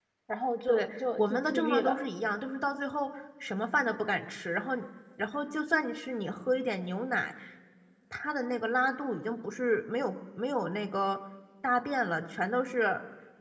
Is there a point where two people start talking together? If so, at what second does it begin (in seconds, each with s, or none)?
0.7 s